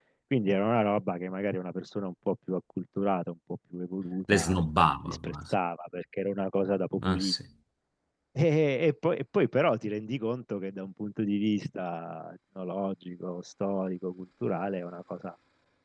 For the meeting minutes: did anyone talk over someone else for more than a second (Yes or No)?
No